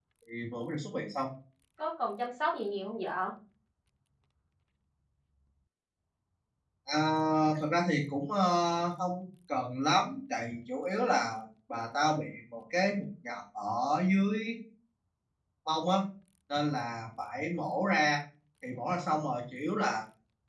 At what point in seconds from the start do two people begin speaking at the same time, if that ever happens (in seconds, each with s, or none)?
none